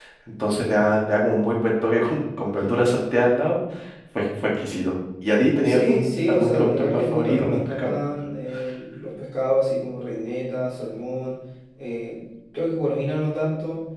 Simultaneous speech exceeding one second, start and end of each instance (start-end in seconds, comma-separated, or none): 5.6-7.9